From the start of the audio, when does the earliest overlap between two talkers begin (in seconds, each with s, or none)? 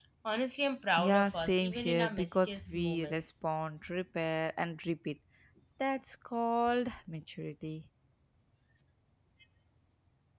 1.0 s